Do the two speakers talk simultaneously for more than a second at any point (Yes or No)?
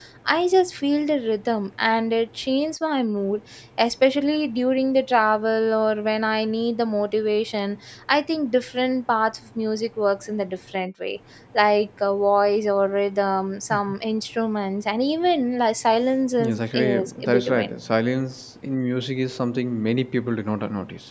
Yes